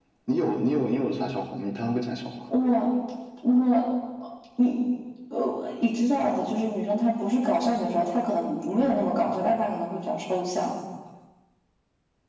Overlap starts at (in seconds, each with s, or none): none